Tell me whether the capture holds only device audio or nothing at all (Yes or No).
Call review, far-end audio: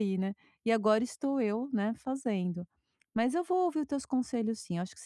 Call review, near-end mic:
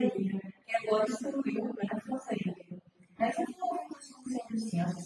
Yes